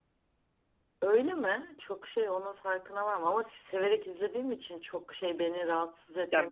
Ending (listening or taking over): taking over